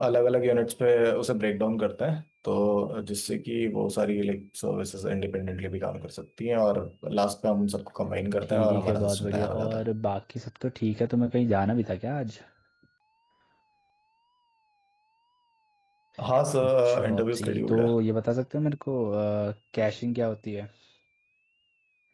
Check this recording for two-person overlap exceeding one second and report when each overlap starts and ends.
8.5-9.8, 16.6-17.9

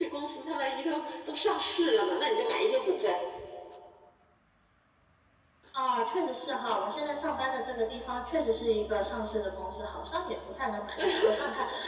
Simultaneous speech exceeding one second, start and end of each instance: none

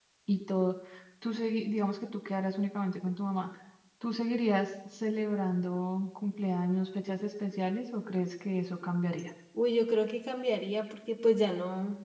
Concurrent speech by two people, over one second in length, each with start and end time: none

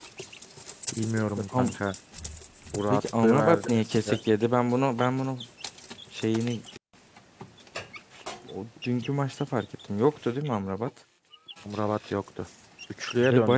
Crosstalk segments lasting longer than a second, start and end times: 2.9-4.1

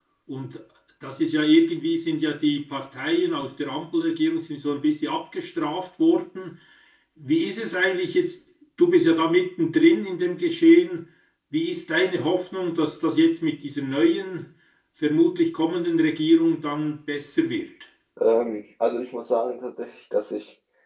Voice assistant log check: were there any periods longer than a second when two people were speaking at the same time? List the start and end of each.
none

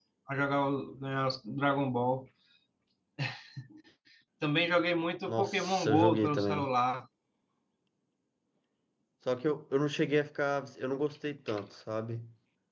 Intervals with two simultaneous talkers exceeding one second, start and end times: 5.3-6.7

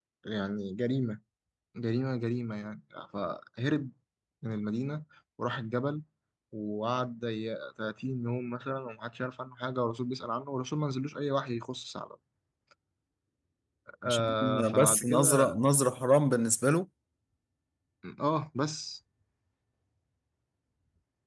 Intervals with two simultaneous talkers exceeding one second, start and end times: 14.1-15.6

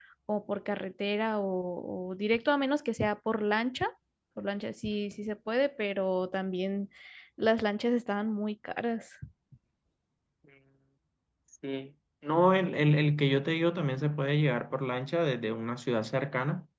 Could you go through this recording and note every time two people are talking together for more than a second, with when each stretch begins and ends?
none

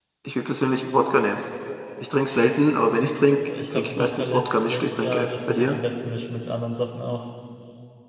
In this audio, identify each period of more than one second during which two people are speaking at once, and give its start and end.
3.7-5.8

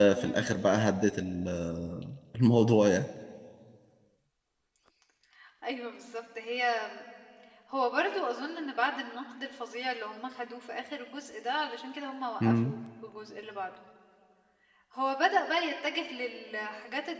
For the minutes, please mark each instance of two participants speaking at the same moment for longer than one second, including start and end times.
none

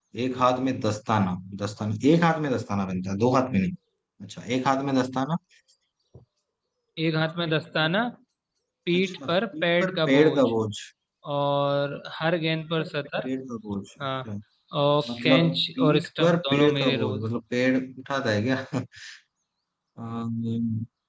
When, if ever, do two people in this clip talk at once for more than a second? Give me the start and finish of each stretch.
8.9-10.4, 15.1-17.3

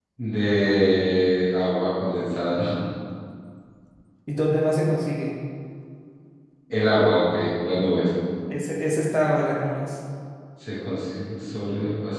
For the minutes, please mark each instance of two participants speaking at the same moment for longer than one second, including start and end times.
none

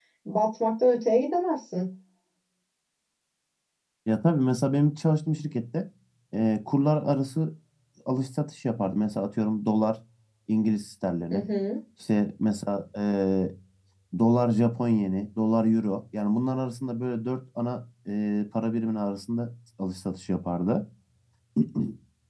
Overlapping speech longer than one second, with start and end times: none

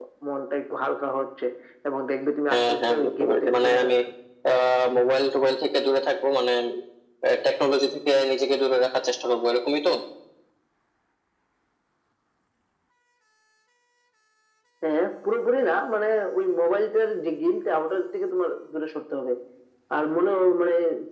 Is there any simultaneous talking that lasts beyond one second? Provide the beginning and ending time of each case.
2.5-3.9

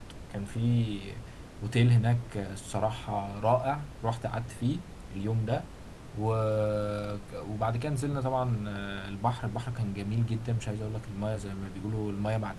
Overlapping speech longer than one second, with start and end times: none

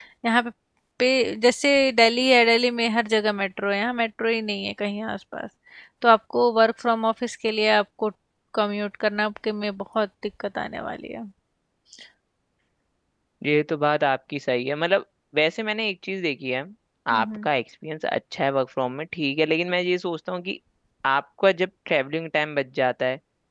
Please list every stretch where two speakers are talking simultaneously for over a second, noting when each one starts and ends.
none

